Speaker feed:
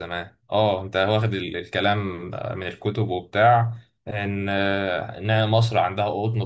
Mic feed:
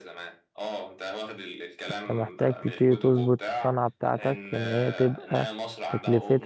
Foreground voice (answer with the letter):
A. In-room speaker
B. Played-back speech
A